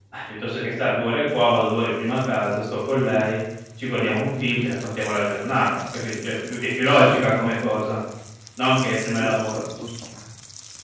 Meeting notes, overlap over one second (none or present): none